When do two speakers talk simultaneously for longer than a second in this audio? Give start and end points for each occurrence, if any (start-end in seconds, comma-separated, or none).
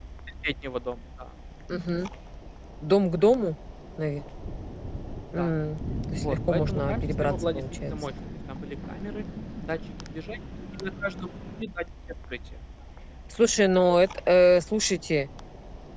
6.1-7.9